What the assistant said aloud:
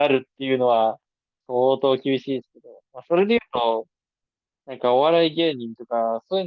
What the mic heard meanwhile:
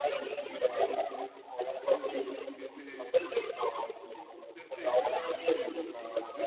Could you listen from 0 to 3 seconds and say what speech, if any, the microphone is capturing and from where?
both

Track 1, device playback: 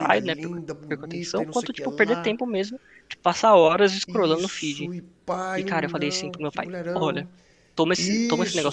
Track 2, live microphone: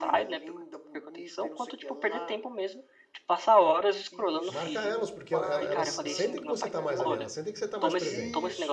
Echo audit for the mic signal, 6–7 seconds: both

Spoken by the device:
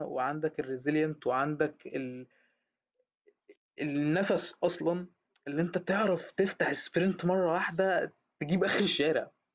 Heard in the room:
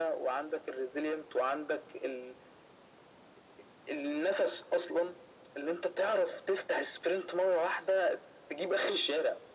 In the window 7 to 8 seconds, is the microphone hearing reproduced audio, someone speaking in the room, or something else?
echo only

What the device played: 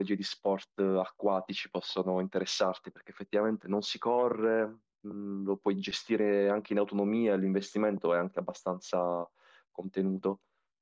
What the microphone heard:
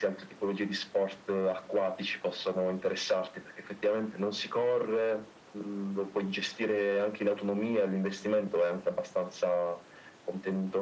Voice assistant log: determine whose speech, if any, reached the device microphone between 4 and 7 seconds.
echo only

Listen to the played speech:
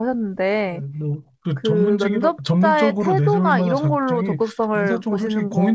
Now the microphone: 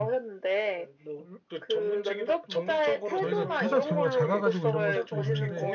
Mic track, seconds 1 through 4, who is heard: both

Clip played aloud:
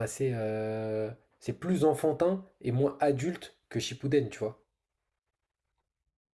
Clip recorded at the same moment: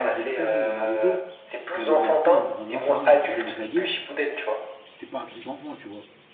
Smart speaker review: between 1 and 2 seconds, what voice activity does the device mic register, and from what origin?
both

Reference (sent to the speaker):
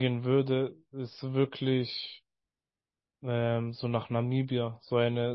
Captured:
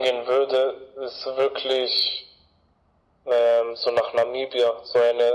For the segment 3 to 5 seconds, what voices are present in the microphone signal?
echo only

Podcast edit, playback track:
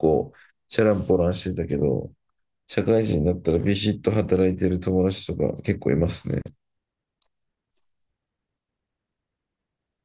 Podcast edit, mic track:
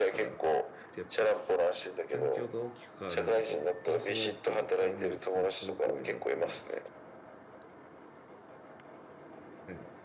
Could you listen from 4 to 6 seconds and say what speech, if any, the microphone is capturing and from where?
both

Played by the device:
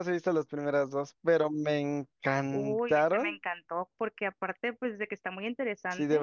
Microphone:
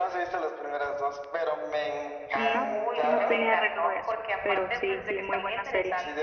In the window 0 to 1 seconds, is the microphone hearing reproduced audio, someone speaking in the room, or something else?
echo only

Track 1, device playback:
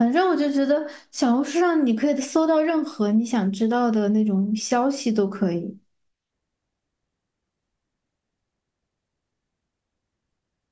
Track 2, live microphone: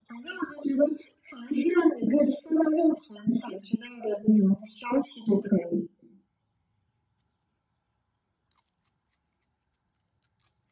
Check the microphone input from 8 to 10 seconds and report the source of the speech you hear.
neither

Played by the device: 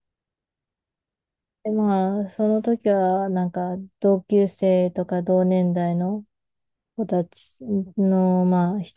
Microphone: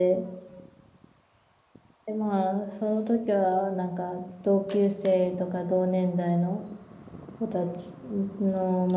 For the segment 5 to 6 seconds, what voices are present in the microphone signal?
echo only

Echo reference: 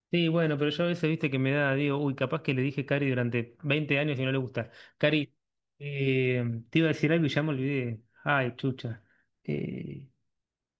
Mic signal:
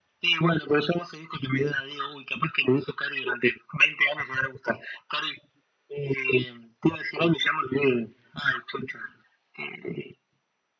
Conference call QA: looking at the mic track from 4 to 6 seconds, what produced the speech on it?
echo only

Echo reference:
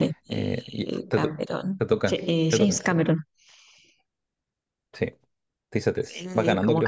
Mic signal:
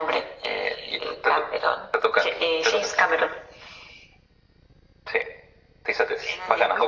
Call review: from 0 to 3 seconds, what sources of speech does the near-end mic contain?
echo only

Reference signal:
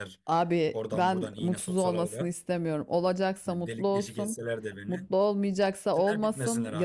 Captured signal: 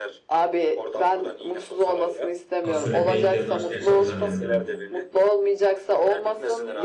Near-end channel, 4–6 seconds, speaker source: both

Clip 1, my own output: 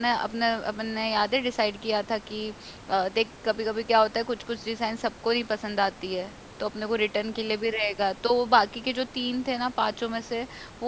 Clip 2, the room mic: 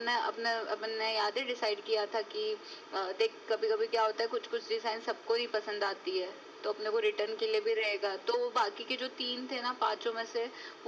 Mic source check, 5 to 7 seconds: echo only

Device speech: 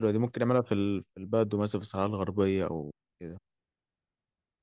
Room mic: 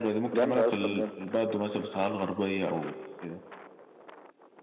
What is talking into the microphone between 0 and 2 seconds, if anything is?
both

